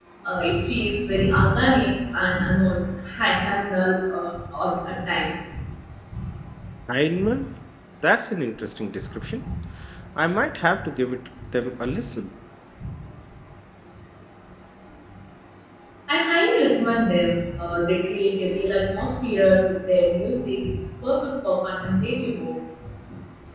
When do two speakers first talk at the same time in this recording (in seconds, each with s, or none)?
none